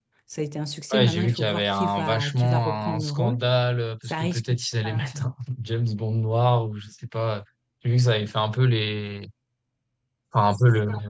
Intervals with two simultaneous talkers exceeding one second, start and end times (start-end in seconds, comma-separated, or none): 0.9-3.4